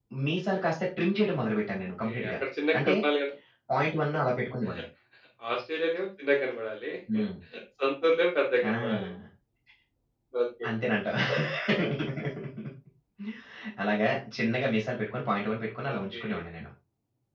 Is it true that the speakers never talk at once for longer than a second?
Yes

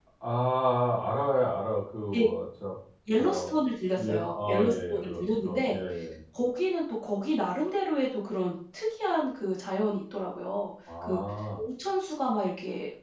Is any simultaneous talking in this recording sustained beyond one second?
Yes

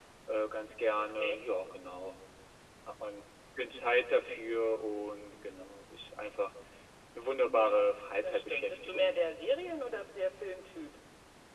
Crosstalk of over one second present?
Yes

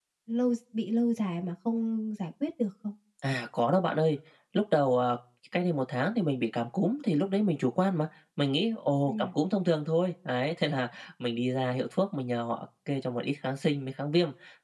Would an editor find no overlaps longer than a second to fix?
Yes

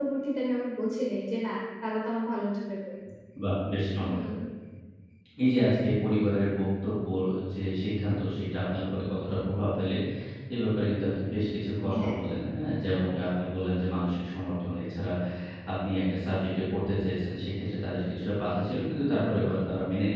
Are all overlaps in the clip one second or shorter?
Yes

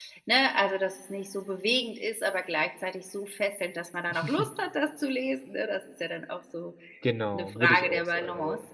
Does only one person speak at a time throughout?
No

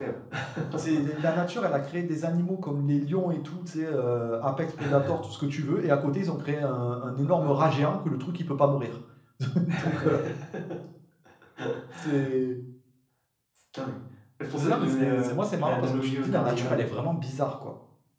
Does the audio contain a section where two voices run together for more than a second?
Yes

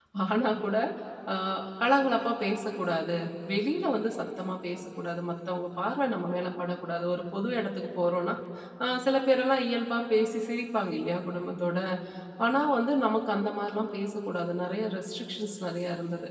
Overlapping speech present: No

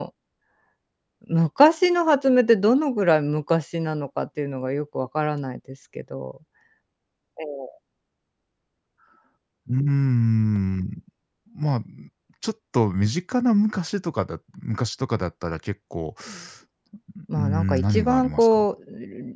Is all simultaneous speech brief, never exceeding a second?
No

